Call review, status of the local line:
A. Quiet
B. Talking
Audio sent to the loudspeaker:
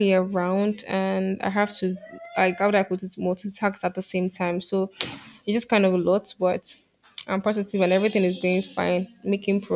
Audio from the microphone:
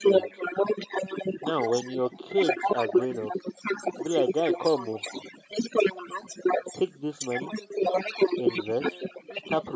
B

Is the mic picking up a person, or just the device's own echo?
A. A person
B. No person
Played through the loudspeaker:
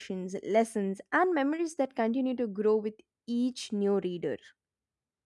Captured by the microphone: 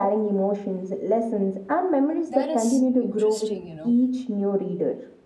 A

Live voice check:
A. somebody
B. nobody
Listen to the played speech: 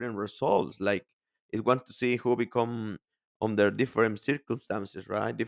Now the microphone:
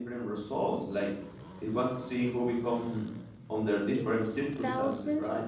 A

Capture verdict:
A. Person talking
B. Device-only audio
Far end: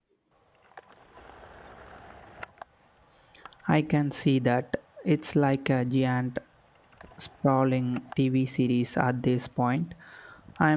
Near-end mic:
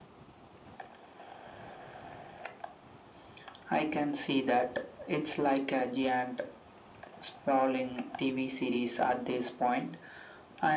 B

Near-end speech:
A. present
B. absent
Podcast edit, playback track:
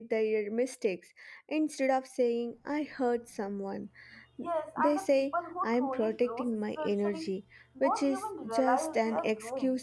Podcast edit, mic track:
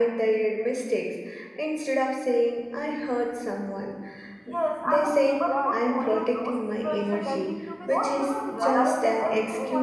A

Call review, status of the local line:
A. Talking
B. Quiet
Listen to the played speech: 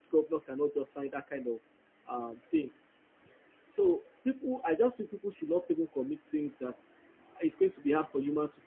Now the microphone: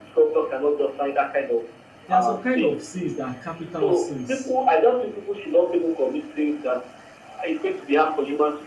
A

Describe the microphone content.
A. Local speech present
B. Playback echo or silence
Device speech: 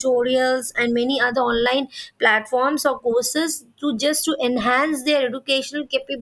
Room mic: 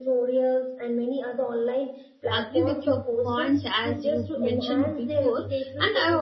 A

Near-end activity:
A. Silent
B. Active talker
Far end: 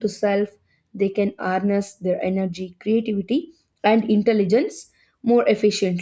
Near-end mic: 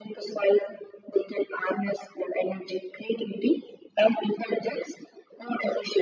A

